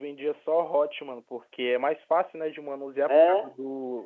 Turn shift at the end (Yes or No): No